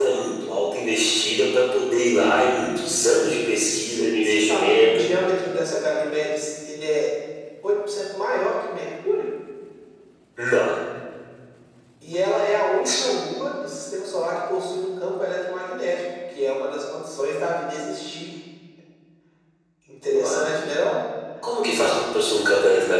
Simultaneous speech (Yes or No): Yes